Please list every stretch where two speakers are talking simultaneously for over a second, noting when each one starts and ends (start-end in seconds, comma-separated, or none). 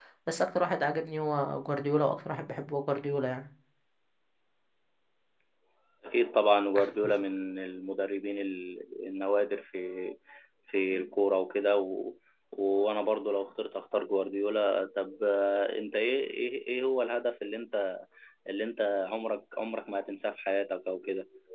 none